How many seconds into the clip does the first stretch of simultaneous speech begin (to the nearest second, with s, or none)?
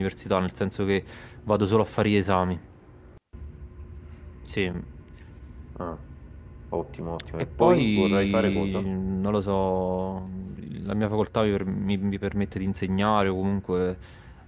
8 s